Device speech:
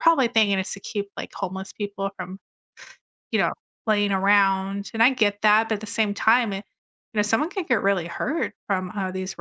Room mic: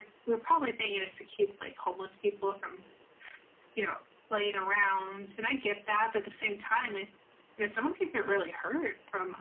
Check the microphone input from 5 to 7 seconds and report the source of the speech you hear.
echo only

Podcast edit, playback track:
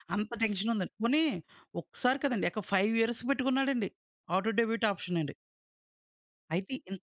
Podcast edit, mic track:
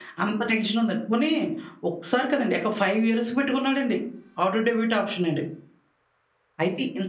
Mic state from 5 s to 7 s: echo only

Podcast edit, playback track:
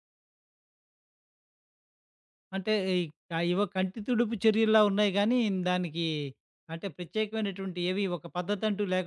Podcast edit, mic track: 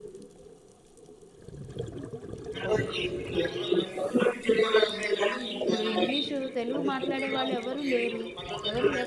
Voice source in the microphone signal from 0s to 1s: neither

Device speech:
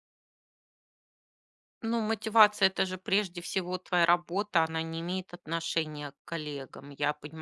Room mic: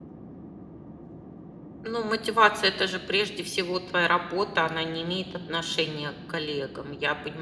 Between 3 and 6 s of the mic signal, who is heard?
echo only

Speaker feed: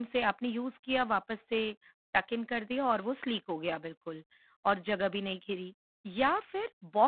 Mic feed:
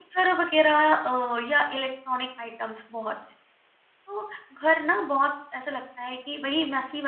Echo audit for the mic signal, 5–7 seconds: user only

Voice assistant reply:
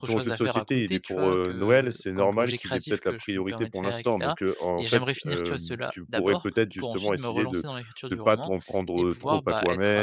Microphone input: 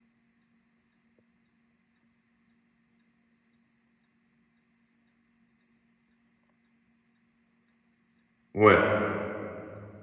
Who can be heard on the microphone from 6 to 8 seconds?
neither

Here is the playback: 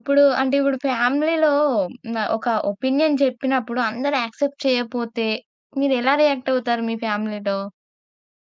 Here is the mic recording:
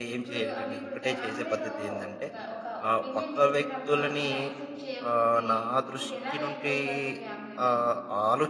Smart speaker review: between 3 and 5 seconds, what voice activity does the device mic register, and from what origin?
both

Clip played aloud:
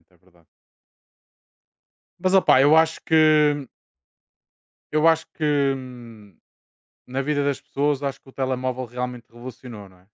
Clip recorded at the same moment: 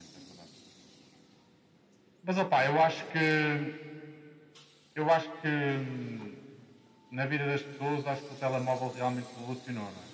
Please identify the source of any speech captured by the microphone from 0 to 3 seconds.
echo only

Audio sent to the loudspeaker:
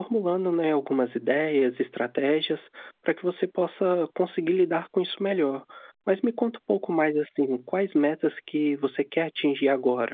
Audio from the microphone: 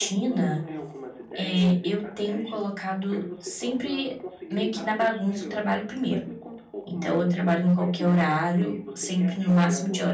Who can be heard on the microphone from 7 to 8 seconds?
both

